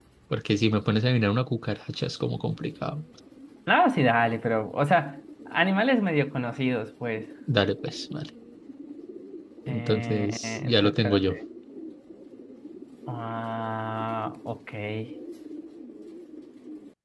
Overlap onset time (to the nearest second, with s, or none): 10 s